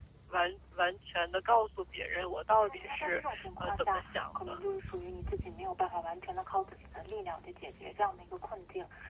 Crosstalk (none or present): present